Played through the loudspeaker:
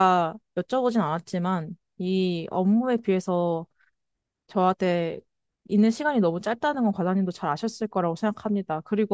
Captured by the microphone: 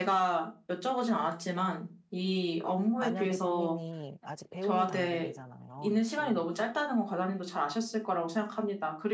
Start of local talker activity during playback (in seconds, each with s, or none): 3.0 s